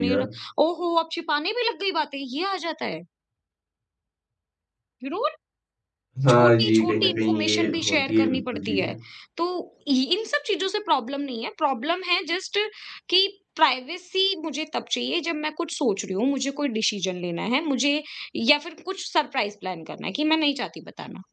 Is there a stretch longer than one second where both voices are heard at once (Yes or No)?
Yes